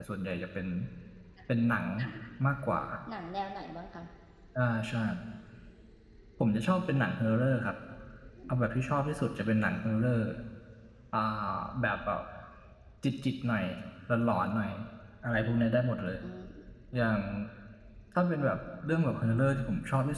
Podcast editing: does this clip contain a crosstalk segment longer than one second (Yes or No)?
No